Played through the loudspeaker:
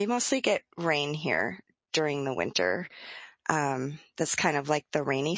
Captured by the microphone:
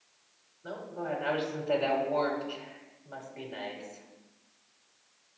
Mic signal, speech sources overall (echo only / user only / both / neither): user only